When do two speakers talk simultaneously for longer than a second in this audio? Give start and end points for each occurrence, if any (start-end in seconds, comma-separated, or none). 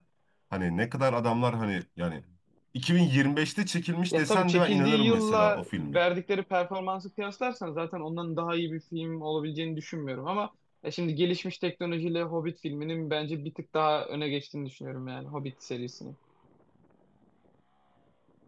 4.1-6.0